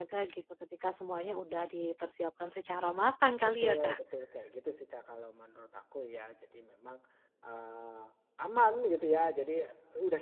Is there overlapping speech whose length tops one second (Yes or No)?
No